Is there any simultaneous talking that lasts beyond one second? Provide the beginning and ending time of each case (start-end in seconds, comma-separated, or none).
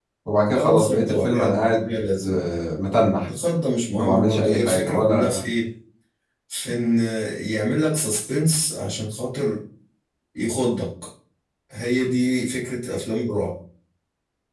0.5-2.4, 4.0-5.4